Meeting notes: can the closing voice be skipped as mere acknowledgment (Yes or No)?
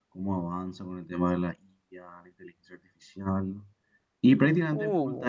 Yes